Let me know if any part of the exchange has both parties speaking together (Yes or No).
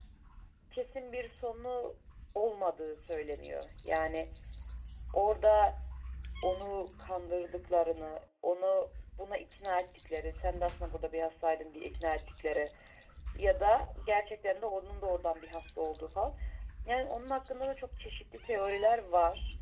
No